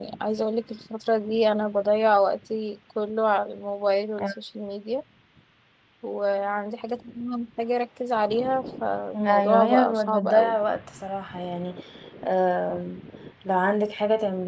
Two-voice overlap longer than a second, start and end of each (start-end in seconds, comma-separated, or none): 9.1-10.6